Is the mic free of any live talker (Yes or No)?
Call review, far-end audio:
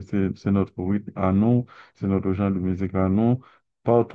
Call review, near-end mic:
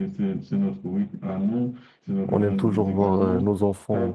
No